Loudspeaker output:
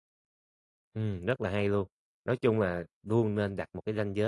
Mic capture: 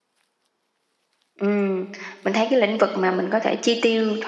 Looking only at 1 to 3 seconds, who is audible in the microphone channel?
user only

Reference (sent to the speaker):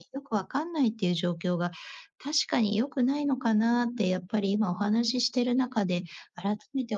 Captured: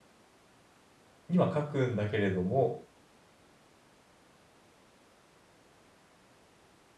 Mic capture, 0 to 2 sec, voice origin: user only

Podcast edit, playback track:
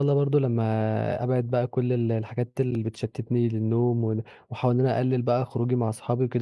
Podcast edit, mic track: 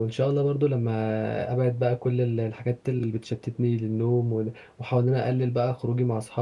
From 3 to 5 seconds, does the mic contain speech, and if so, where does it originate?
echo only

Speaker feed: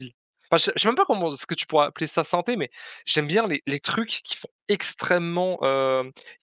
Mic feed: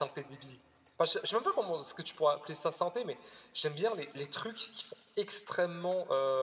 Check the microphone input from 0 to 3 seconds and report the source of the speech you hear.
echo only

